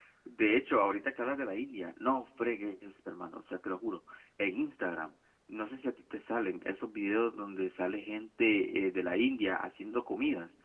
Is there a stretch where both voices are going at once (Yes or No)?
No